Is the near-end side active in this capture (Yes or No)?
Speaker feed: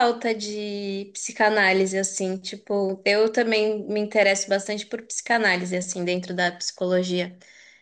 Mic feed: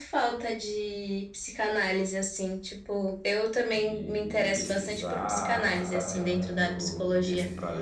Yes